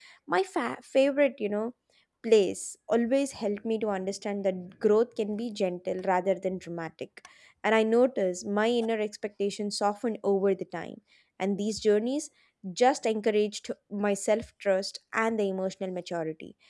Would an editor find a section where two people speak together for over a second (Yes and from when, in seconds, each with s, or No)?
No